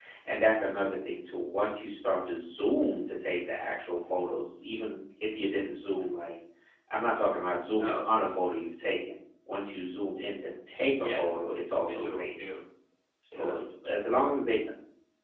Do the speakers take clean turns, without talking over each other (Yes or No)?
No